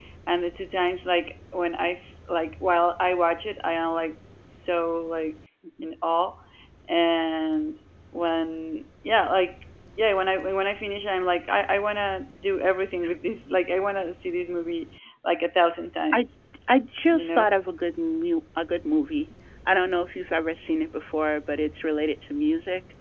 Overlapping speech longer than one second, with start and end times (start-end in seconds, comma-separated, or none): none